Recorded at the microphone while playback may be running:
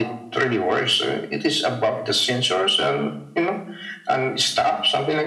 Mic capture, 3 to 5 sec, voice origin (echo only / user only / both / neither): echo only